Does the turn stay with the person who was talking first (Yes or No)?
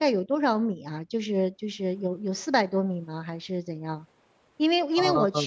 Yes